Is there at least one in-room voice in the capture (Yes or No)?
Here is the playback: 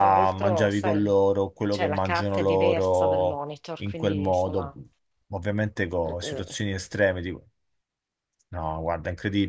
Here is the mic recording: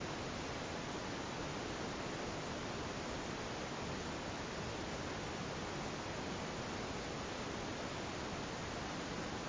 No